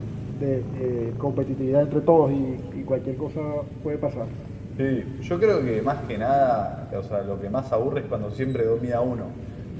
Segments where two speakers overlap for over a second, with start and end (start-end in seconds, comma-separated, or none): none